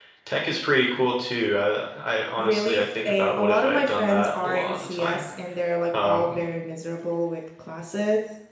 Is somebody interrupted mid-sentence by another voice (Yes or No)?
Yes